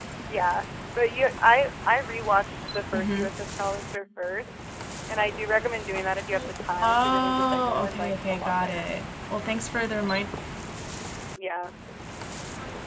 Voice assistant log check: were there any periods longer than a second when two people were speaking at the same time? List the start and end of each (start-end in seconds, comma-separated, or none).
6.8-8.9